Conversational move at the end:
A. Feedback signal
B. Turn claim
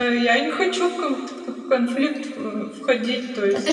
B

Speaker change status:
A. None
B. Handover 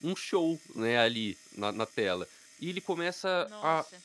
A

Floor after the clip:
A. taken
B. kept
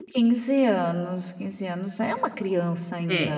A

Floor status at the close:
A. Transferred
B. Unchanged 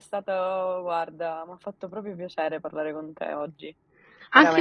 A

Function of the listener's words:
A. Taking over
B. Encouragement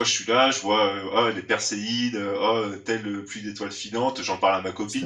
B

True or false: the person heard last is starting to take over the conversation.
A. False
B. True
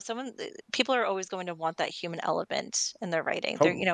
A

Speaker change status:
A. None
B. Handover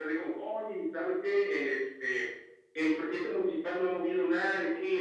B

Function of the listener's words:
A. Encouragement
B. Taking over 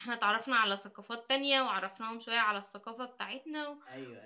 B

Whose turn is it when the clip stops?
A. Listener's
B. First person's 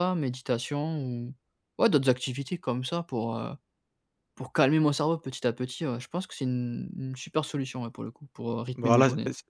A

